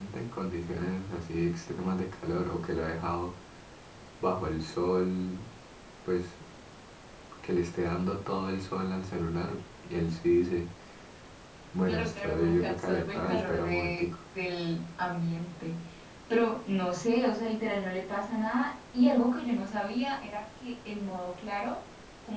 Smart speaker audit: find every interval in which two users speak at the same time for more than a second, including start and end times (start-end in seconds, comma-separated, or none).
11.9-14.1